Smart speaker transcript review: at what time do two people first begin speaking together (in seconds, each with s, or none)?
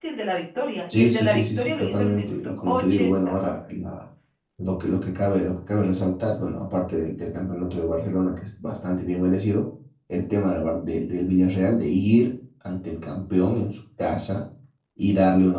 0.9 s